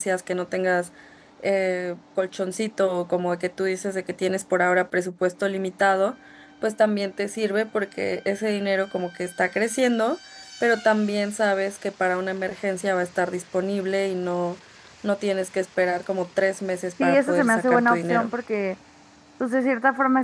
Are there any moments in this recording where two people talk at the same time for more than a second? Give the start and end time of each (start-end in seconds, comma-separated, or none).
17.0-18.3